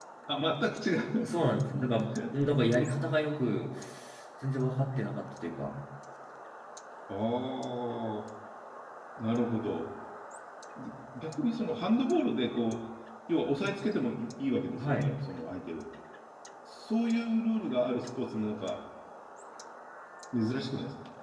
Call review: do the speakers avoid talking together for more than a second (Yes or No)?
Yes